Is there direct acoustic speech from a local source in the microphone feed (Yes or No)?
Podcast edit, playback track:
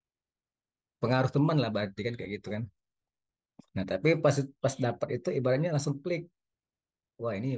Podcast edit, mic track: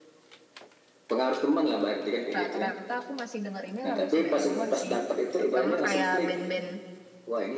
Yes